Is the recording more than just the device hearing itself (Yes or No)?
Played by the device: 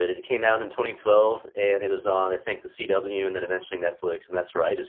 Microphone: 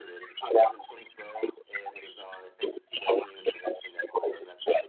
No